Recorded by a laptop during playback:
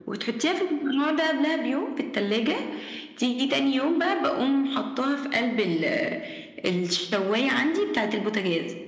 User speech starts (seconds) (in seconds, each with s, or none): none